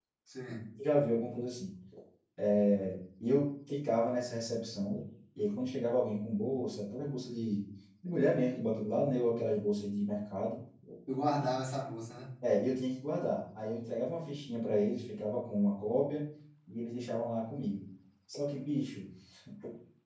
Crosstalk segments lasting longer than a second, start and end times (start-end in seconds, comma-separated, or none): none